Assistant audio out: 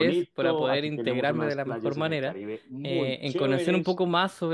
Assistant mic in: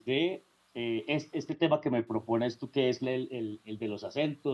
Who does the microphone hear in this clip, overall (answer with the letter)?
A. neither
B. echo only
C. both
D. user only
D